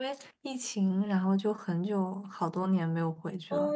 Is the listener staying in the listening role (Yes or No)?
No